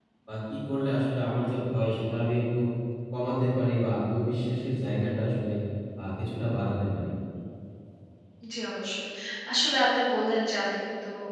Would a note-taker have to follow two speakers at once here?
No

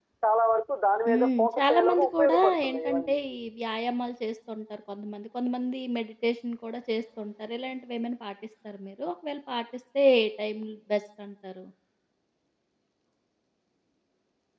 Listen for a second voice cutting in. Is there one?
Yes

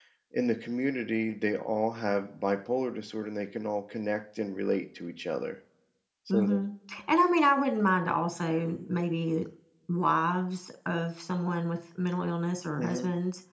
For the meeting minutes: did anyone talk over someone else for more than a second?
No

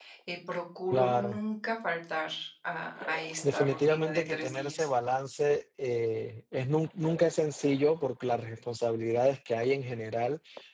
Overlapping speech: Yes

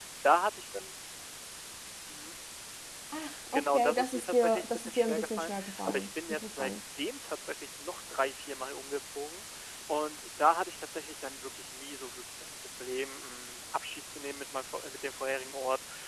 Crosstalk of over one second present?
Yes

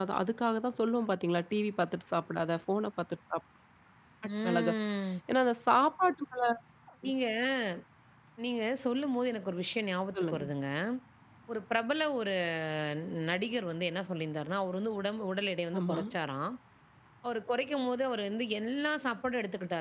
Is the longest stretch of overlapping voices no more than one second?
Yes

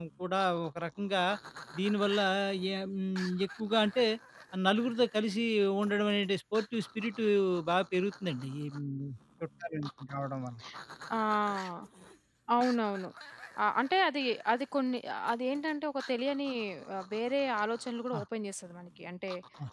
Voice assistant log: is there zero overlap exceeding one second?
Yes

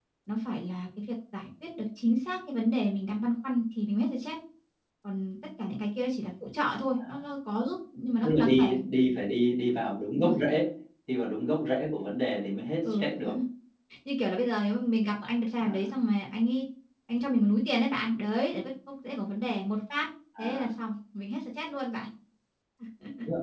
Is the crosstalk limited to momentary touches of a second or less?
Yes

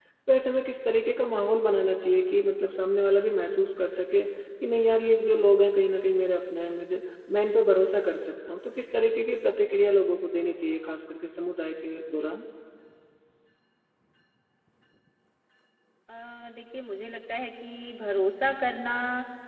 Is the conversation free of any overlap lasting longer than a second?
Yes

